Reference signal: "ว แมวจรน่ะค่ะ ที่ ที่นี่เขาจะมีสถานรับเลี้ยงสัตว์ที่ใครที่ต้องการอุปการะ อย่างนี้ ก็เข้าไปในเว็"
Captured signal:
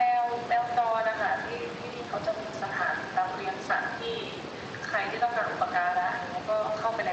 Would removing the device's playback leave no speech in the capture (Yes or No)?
Yes